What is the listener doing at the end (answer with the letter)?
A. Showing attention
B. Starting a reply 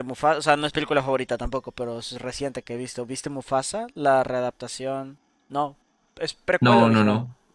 B